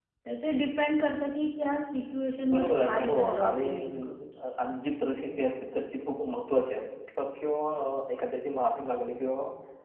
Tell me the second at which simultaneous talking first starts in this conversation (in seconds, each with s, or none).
2.4 s